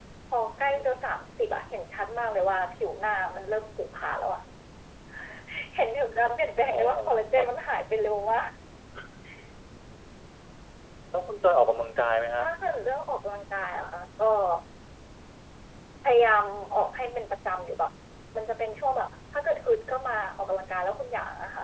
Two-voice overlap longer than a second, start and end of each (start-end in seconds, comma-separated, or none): none